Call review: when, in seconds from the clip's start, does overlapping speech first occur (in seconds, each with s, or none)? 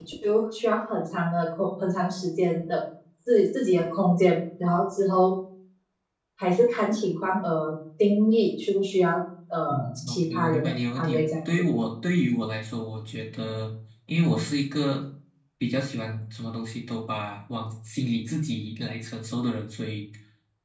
9.7 s